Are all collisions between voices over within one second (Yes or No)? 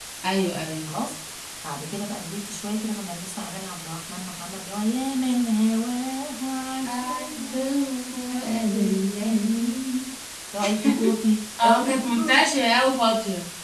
No